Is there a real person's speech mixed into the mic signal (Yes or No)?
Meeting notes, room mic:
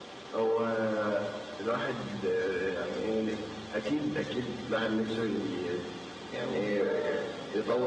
Yes